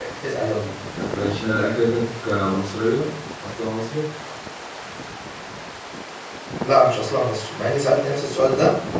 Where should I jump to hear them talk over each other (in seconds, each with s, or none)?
none